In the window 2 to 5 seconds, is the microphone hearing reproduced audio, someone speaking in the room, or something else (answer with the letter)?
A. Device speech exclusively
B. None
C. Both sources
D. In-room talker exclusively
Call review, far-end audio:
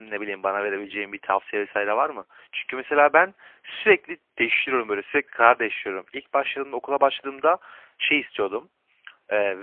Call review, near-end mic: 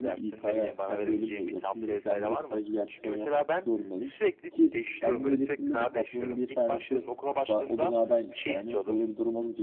C